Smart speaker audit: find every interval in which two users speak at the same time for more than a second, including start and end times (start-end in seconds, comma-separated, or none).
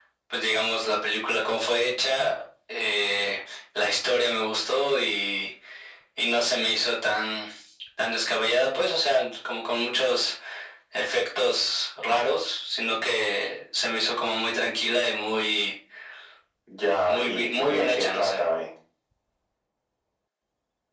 17.0-18.4